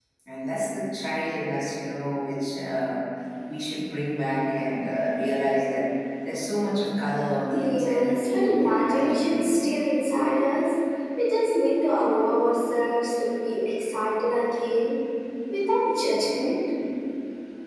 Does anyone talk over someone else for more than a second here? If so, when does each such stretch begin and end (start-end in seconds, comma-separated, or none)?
7.5-9.7